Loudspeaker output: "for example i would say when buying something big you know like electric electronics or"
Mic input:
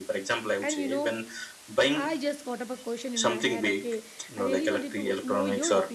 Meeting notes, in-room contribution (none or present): present